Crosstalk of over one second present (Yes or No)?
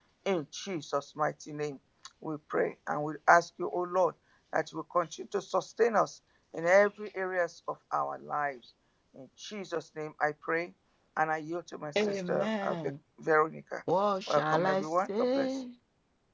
Yes